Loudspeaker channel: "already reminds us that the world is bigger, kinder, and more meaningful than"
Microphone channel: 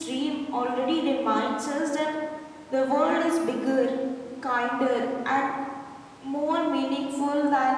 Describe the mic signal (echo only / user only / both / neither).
echo only